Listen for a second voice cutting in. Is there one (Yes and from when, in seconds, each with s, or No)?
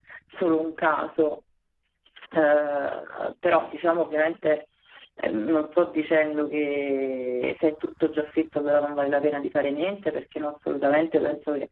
No